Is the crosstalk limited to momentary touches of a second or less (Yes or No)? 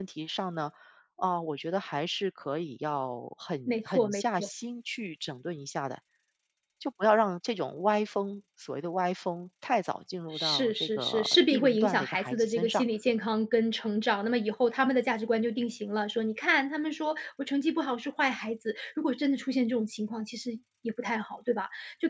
No